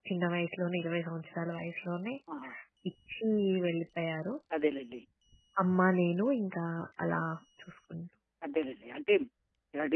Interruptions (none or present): none